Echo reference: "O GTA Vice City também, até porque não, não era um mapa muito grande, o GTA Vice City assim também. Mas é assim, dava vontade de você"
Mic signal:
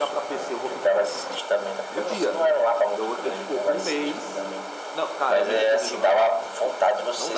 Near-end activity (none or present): present